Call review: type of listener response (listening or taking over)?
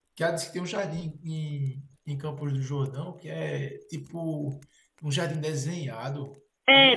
taking over